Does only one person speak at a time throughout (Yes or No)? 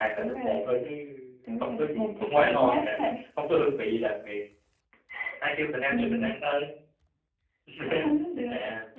No